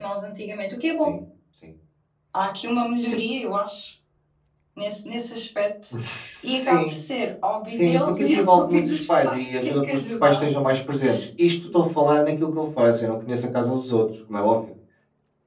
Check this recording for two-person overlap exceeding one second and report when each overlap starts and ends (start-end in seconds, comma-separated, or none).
7.7-10.4